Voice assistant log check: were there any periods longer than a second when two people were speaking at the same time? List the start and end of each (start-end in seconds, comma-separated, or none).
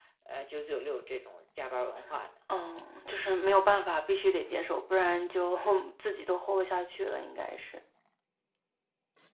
none